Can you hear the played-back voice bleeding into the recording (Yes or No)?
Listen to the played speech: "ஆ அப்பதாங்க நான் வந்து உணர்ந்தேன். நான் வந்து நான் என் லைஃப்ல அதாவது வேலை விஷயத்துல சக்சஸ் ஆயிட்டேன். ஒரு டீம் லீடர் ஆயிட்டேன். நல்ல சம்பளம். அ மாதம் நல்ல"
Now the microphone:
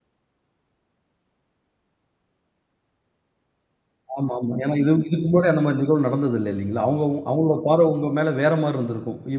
No